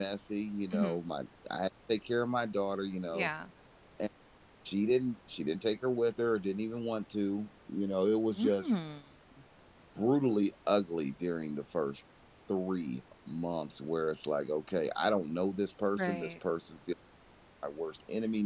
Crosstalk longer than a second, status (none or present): none